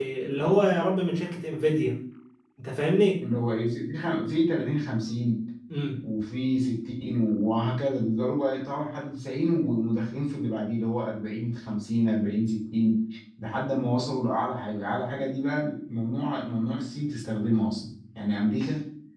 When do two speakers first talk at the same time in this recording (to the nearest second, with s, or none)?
none